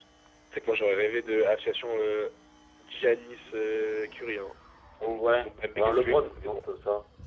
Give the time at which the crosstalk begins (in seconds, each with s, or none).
5.0 s